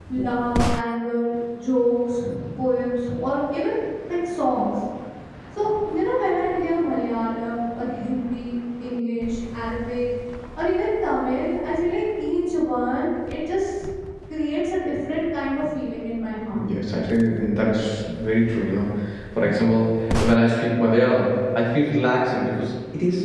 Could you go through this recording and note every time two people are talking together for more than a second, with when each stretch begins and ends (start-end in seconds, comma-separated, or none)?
none